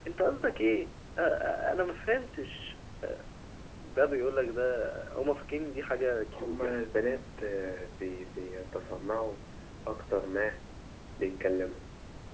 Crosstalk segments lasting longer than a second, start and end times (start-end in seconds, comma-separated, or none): none